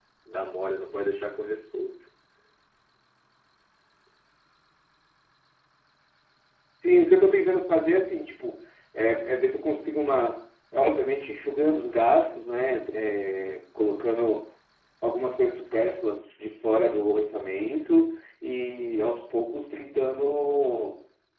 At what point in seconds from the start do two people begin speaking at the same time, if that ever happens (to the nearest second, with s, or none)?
none